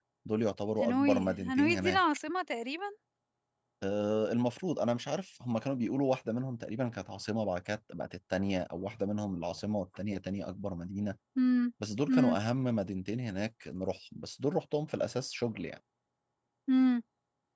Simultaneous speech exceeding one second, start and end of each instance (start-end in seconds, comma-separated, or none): 0.8-2.0